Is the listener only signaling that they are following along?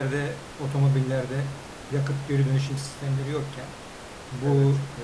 Yes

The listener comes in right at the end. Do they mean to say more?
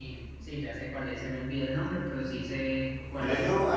Yes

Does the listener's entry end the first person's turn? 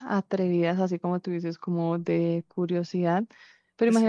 No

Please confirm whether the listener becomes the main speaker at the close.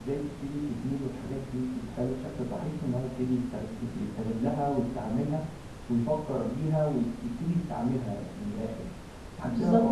Yes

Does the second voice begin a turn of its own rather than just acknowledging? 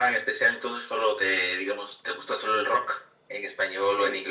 Yes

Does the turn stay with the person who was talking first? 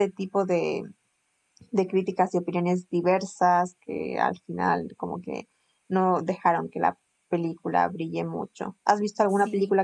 Yes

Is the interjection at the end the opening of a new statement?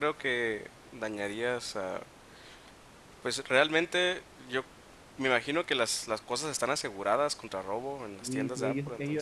Yes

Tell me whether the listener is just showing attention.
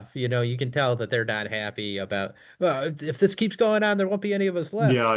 No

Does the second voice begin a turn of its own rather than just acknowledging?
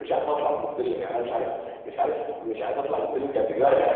Yes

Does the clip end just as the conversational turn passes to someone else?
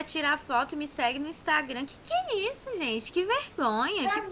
Yes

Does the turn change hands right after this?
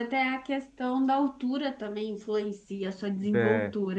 Yes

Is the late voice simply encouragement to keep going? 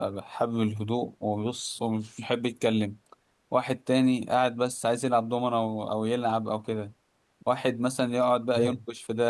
Yes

